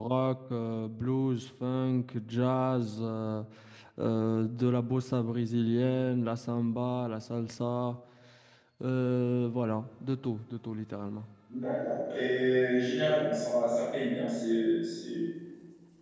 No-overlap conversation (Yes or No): Yes